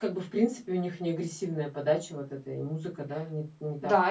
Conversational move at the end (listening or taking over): taking over